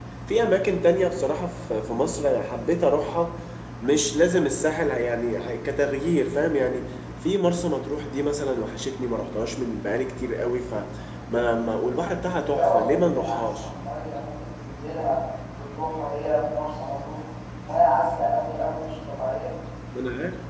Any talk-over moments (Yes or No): Yes